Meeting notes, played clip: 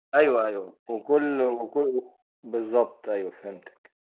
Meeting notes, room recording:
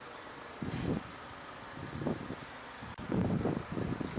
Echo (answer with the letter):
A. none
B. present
A